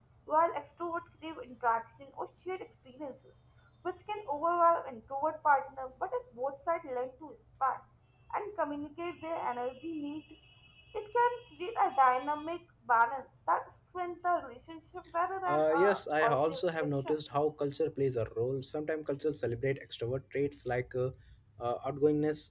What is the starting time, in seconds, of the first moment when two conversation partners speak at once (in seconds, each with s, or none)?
15.5 s